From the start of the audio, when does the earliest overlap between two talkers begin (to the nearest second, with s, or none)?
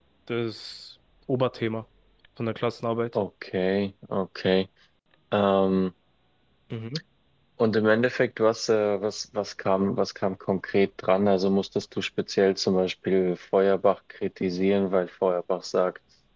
none